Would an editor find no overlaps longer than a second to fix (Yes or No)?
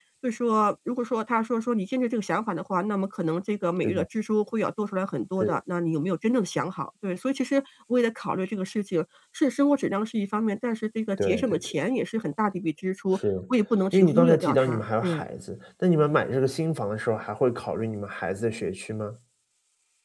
No